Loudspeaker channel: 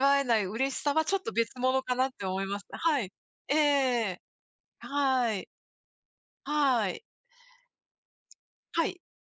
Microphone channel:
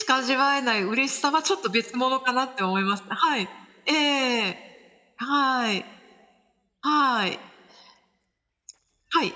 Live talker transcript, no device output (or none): none